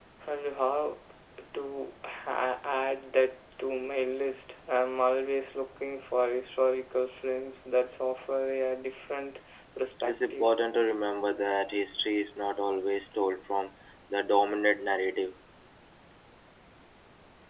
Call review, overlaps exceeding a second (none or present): none